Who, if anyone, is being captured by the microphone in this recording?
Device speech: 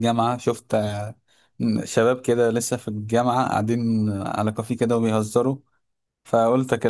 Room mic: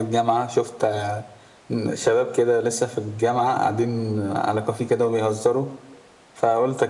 echo only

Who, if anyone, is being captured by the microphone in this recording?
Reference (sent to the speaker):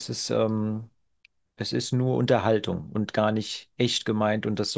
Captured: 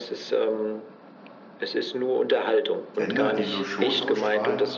both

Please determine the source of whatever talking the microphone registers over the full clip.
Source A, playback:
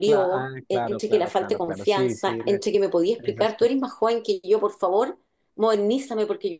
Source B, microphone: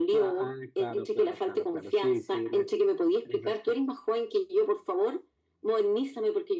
echo only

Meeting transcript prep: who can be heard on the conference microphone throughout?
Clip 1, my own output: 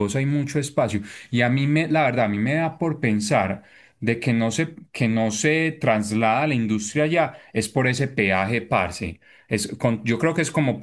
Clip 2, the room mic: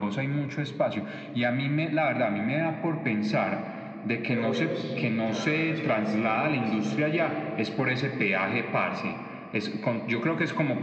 both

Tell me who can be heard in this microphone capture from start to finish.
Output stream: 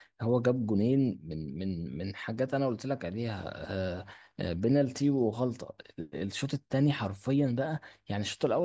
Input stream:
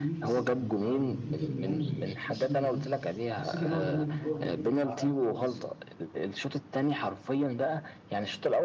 both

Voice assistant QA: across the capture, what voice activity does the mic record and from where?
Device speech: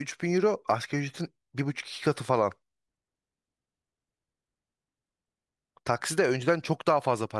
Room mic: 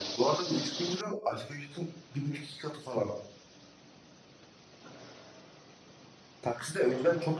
echo only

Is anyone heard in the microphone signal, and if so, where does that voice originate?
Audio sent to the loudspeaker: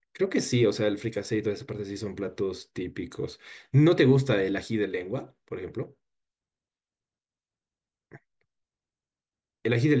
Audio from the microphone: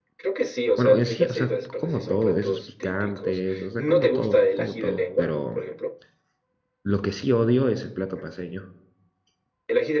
both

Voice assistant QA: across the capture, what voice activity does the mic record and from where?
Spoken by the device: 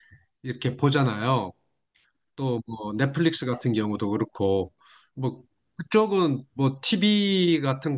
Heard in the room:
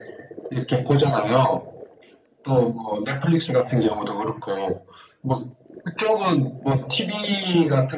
both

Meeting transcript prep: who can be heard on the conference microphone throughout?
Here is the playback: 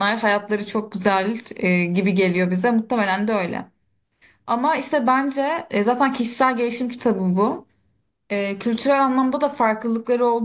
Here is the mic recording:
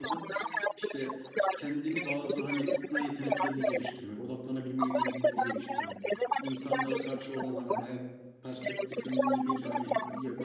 both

